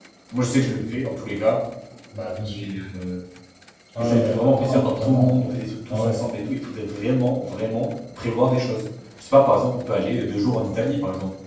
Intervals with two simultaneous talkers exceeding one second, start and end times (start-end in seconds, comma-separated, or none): 4.0-5.4